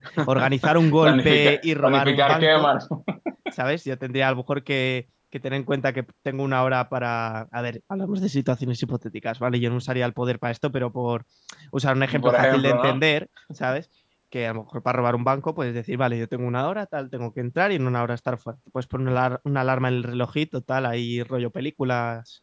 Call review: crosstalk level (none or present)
present